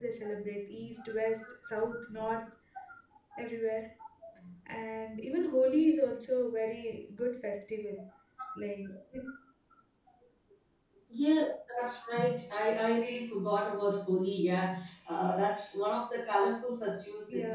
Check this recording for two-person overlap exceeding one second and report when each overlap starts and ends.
none

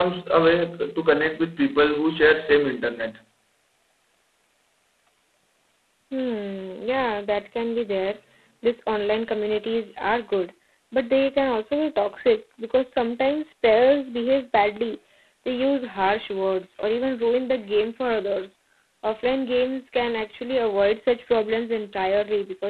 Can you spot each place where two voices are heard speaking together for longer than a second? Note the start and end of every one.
none

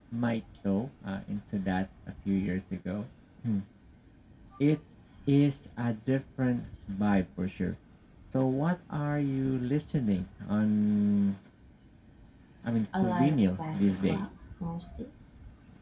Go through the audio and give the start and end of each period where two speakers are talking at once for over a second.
13.0-14.2

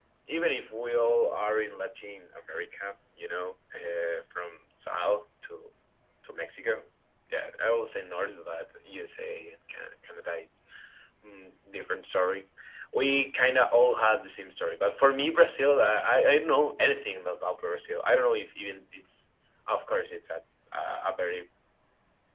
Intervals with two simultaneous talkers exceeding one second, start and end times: none

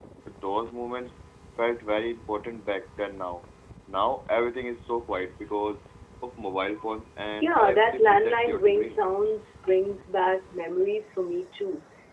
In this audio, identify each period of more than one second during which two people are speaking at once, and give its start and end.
7.4-9.0

